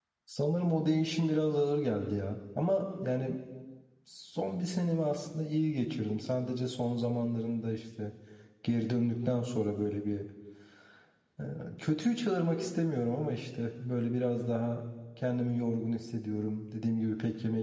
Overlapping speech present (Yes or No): No